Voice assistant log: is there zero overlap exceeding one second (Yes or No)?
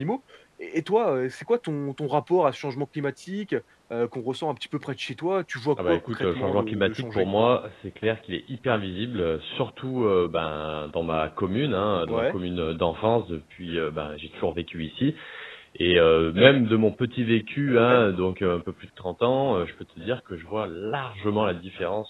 No